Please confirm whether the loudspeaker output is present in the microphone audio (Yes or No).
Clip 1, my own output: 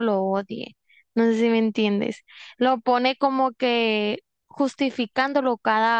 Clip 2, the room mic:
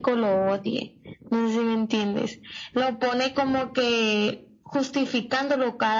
Yes